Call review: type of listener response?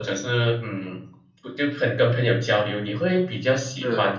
listening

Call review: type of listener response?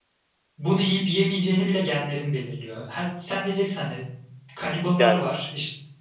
listening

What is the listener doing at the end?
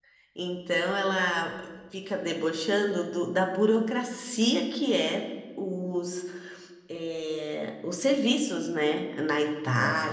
listening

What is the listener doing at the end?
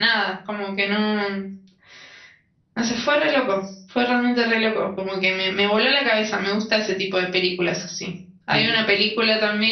listening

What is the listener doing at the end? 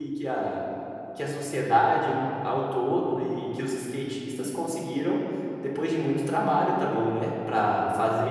listening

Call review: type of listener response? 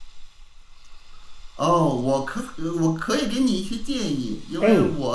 listening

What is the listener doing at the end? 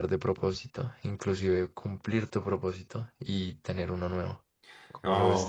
taking over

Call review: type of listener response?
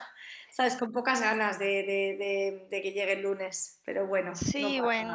taking over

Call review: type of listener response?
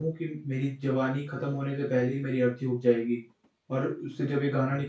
listening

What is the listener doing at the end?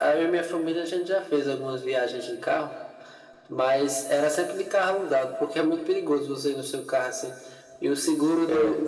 listening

